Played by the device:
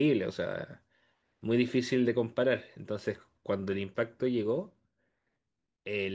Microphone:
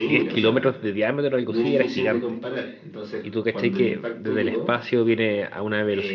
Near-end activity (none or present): present